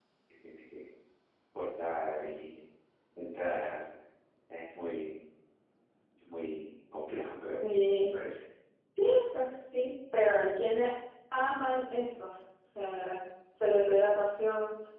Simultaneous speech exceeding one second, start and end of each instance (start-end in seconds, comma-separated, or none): none